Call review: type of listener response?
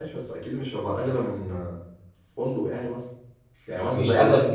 taking over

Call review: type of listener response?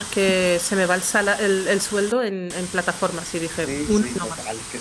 taking over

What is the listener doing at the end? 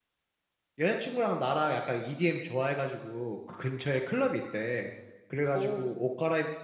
listening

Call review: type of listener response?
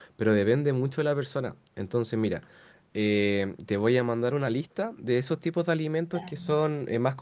listening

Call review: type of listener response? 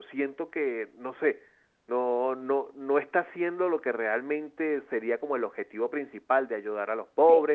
taking over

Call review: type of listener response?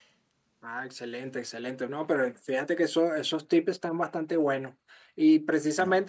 listening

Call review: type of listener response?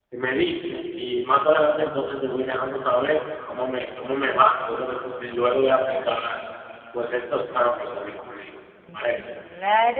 taking over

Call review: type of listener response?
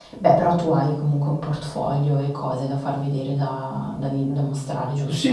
taking over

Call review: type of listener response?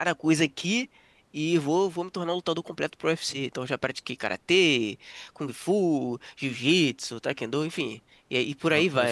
taking over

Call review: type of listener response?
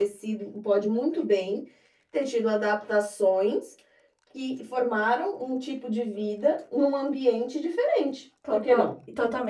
taking over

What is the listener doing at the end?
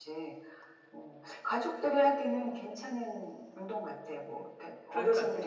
listening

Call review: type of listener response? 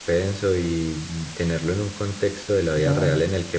listening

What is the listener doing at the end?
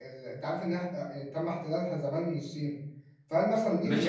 taking over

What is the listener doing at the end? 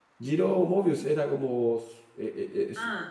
taking over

